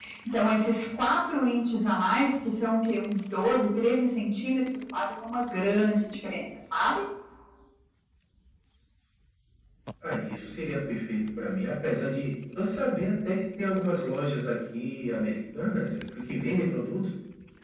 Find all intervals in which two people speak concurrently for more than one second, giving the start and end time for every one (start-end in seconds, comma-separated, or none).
none